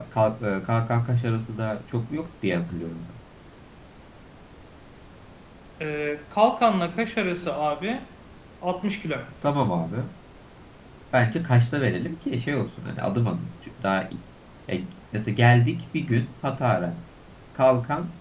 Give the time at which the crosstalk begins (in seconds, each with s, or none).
none